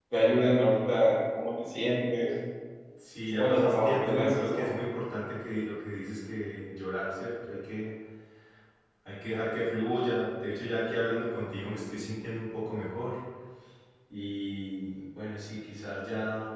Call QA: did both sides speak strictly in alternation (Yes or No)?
No